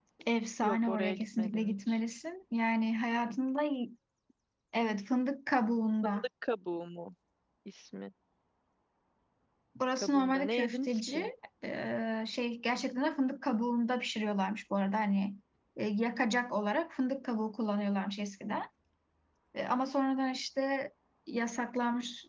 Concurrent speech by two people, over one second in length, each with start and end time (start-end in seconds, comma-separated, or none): 0.6-2.0, 10.0-11.3